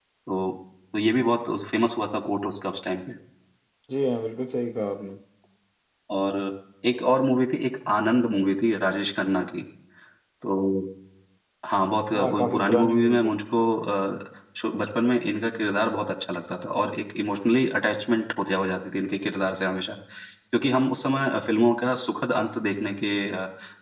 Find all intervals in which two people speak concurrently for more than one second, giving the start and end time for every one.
12.1-13.4

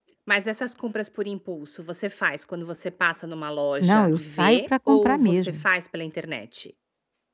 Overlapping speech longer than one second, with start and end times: 3.8-5.7

